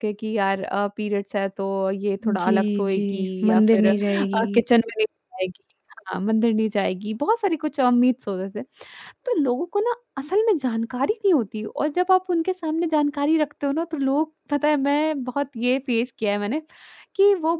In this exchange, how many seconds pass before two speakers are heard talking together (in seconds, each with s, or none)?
2.2 s